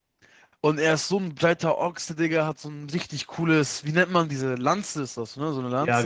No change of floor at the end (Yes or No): No